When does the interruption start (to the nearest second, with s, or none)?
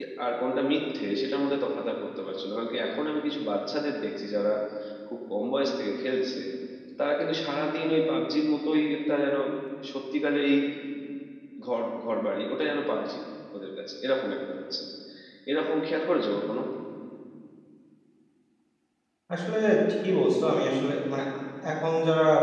none